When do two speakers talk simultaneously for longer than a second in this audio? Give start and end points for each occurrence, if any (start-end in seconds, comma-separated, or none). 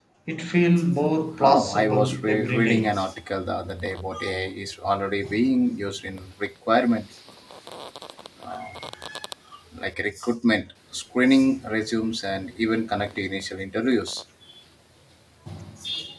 1.4-2.9